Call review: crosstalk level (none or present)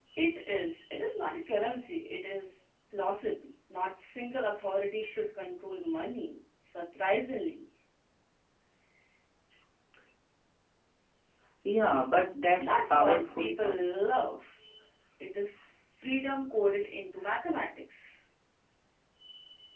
present